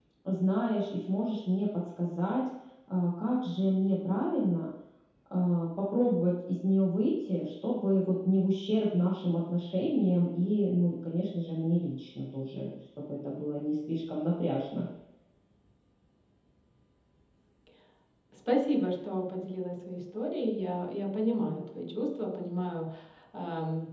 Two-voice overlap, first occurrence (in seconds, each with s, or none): none